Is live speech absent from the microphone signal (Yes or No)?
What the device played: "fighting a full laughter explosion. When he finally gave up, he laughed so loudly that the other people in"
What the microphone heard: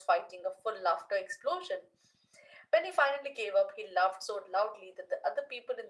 Yes